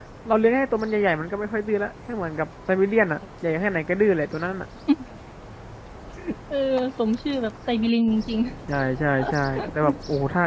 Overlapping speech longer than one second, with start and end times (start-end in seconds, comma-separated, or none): none